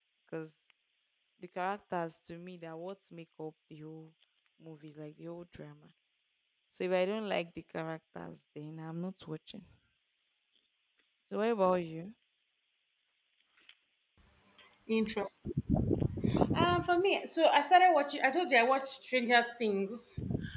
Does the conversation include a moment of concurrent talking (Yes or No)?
No